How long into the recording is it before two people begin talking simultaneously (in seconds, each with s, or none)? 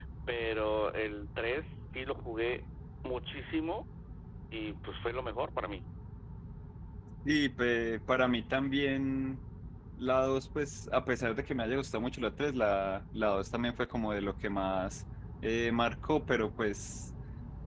none